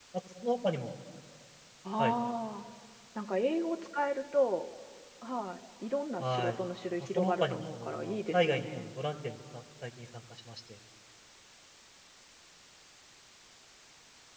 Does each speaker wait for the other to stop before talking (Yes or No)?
No